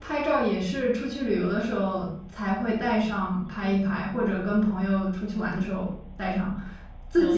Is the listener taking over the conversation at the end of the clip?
No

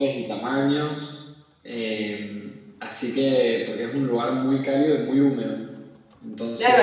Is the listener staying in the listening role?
No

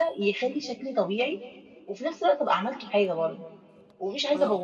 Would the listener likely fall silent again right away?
Yes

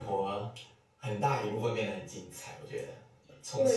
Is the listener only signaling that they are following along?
No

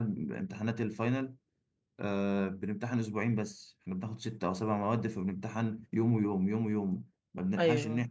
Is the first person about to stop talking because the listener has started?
No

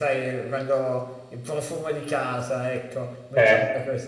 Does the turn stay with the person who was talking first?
Yes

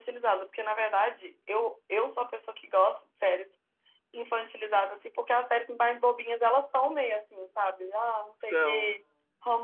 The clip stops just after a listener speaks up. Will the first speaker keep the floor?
Yes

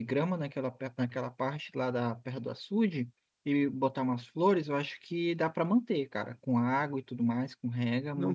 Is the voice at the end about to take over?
Yes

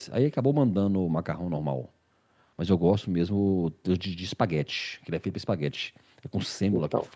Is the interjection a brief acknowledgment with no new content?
Yes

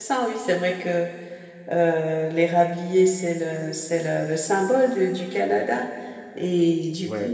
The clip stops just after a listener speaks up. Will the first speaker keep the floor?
Yes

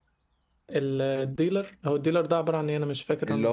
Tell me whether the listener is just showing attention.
No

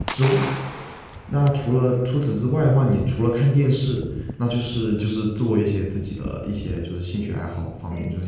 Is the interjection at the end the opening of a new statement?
No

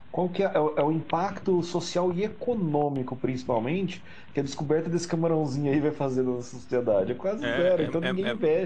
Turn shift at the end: Yes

